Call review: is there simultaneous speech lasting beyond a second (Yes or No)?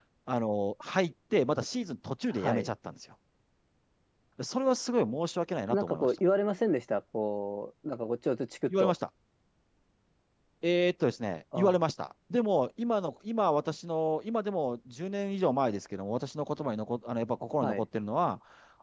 No